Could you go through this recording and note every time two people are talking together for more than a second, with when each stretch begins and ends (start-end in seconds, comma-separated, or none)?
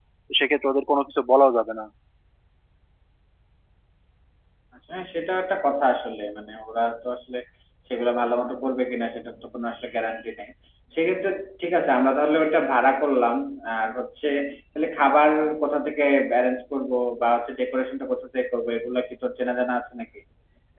none